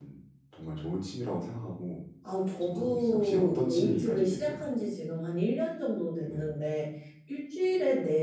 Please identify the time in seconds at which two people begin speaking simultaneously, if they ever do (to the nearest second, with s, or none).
3 s